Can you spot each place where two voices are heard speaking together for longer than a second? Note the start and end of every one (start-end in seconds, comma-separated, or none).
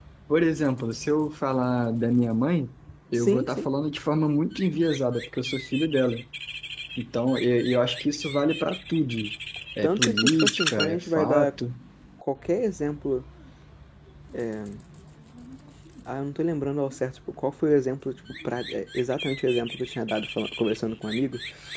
9.8-11.5